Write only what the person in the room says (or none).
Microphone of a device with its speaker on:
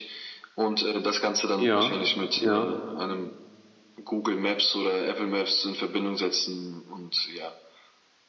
ja, ja,